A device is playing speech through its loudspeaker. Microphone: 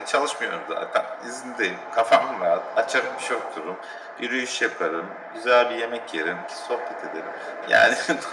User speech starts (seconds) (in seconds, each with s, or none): none